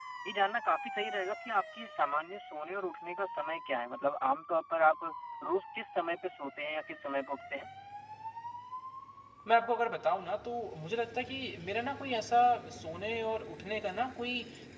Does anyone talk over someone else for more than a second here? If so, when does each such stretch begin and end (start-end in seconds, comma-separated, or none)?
none